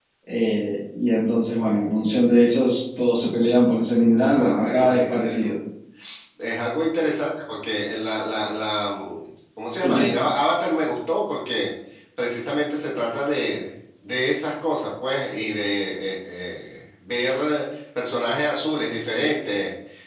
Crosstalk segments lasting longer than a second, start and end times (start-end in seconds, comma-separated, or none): 4.2-5.5